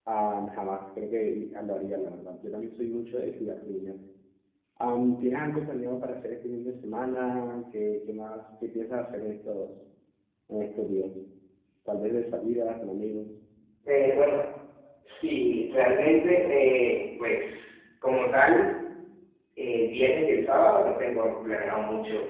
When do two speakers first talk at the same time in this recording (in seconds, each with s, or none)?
none